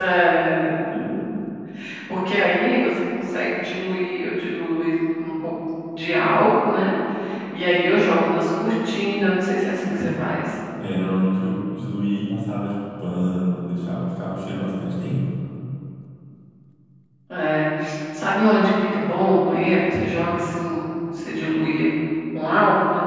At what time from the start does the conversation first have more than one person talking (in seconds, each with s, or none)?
none